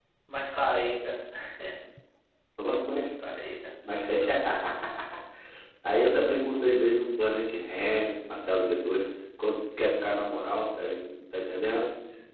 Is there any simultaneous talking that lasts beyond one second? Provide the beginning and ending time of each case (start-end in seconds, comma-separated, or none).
none